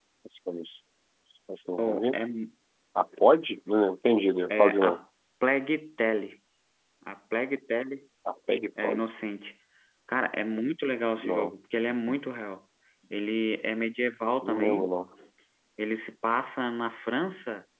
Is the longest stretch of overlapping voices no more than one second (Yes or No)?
Yes